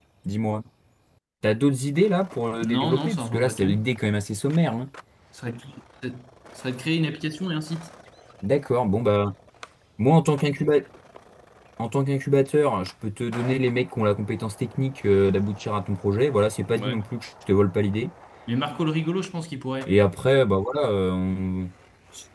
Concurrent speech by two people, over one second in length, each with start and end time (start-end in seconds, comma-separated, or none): 2.6-3.8